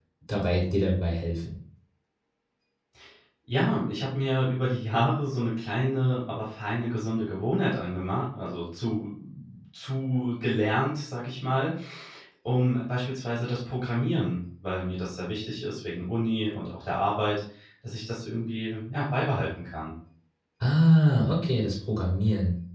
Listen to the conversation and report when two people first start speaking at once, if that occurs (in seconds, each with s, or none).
none